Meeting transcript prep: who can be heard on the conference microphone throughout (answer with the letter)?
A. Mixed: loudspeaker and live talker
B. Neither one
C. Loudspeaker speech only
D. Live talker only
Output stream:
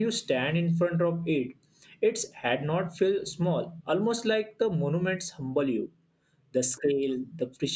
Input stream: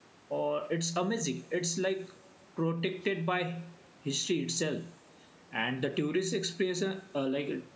D